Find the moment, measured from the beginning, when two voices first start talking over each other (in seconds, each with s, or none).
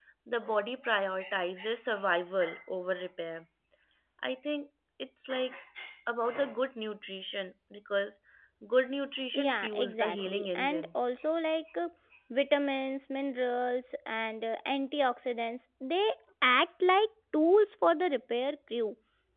9.3 s